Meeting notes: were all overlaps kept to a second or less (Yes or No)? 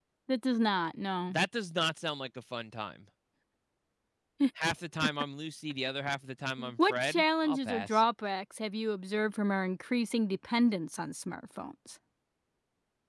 No